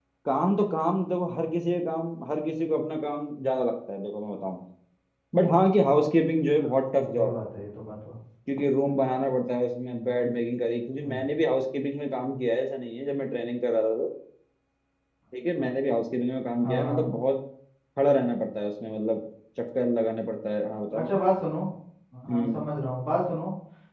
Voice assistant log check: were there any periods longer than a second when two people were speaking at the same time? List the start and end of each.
none

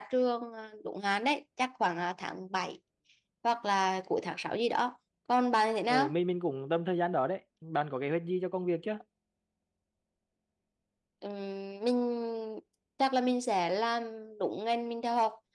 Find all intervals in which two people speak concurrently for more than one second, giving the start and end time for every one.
none

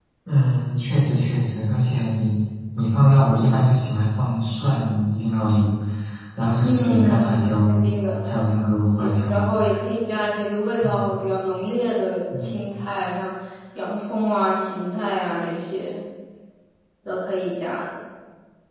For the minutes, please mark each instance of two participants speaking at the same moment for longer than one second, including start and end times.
6.6-7.8

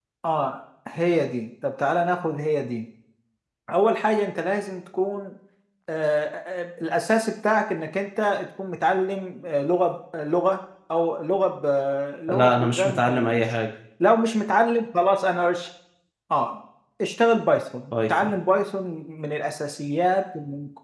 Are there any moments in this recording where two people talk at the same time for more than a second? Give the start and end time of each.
12.3-13.6

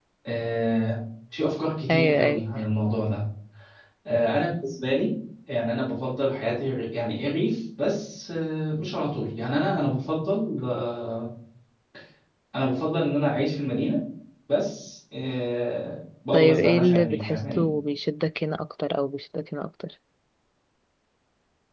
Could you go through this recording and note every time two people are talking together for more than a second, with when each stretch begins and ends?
16.3-17.6

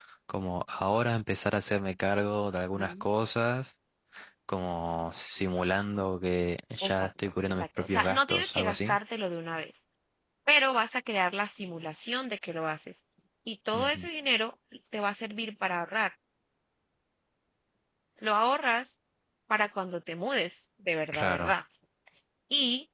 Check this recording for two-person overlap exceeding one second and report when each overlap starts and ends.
6.9-9.0

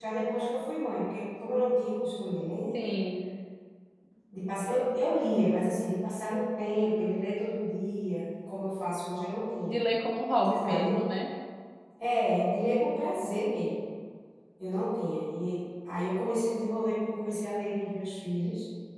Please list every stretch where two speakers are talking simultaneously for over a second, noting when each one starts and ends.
none

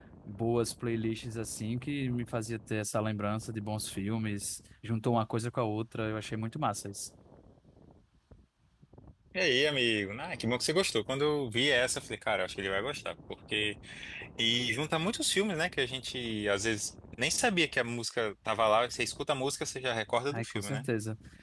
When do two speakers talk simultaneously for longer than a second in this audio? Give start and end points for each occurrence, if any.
none

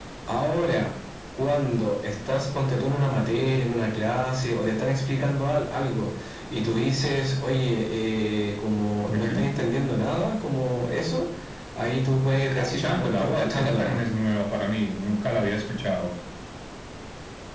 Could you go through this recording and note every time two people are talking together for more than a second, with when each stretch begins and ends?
12.5-14.0

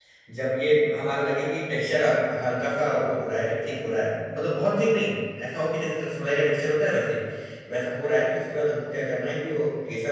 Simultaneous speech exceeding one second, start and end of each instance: none

